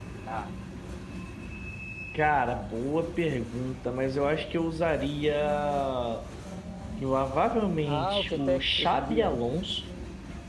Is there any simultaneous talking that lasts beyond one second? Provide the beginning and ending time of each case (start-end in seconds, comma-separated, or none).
7.8-9.4